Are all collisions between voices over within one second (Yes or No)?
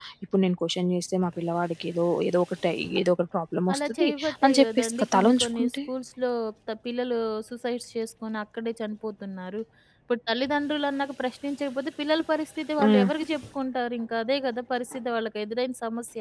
No